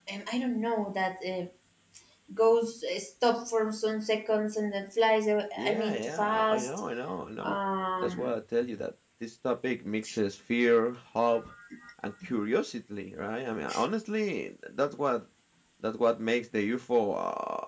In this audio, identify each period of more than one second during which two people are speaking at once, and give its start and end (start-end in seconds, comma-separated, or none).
5.6-6.8